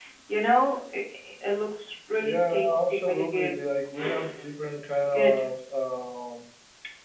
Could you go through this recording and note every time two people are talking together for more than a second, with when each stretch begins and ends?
2.2-3.5

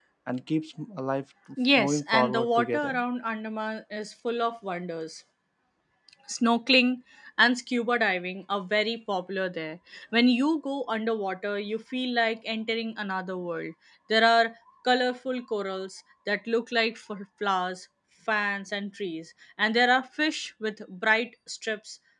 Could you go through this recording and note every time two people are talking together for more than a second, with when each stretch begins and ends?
1.8-3.0

